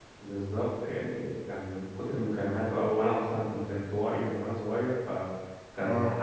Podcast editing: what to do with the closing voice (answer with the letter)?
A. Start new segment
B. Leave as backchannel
B